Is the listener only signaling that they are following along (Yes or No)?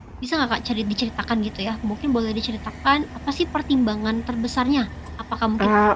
Yes